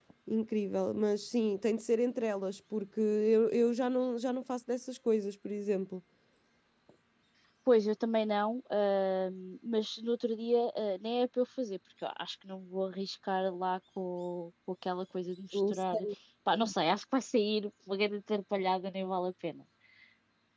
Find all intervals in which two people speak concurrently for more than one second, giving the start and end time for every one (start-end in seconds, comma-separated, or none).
none